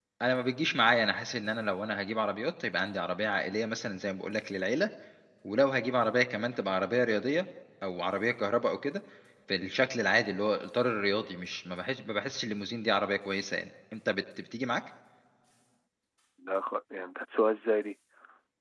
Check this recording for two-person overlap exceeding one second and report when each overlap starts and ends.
none

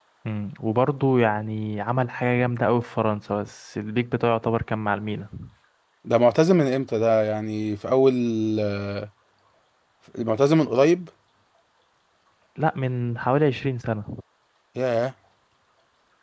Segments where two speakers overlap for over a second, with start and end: none

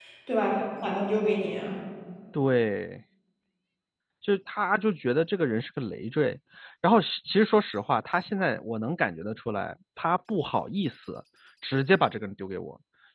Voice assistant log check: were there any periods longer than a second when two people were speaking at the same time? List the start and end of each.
none

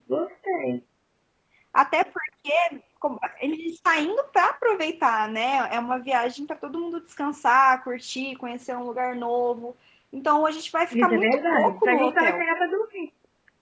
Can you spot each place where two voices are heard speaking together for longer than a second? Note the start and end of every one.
11.0-12.4

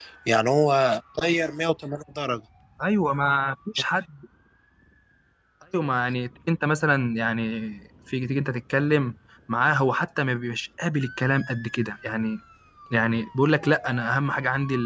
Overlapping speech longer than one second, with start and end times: none

